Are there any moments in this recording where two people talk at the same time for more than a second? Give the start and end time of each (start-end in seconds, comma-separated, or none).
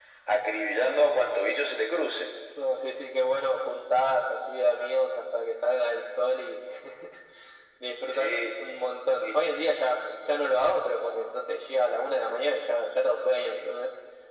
none